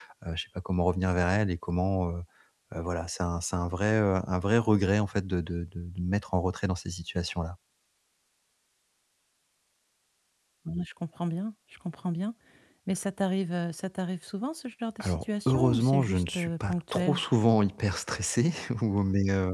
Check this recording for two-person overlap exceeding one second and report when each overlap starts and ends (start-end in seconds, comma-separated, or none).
15.0-17.2